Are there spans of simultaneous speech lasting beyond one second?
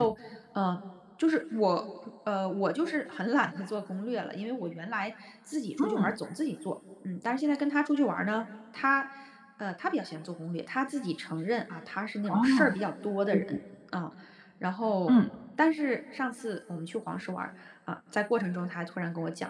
No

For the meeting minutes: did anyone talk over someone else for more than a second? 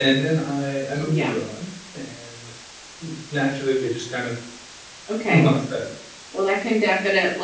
No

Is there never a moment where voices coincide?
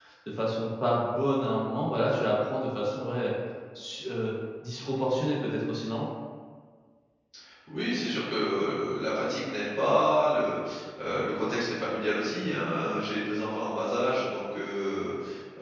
Yes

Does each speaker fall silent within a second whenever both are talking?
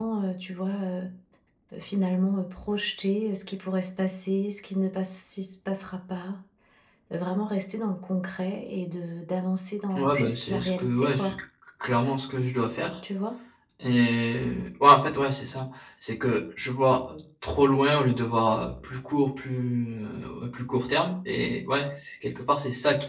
No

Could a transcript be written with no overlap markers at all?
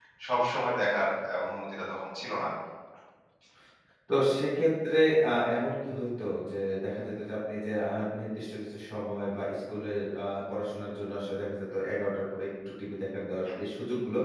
Yes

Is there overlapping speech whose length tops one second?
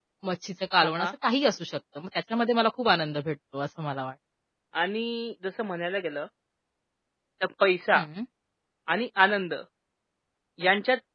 No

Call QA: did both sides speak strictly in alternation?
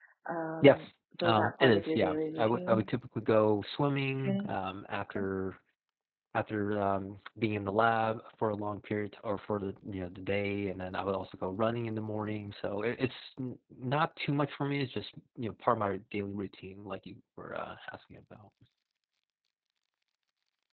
No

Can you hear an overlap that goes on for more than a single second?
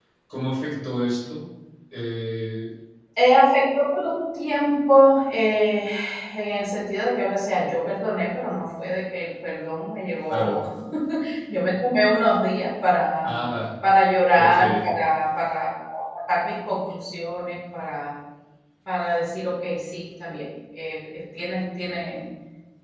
No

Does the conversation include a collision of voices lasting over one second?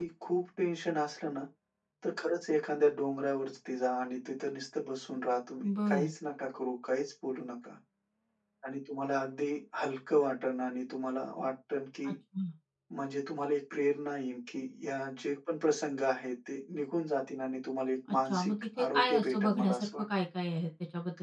Yes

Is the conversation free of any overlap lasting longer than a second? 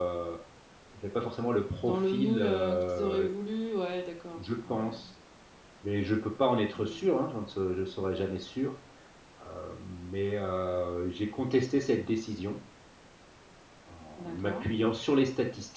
No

